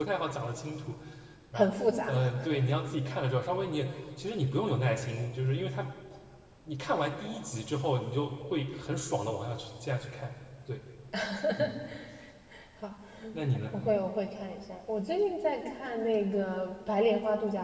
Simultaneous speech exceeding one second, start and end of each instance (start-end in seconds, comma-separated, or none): none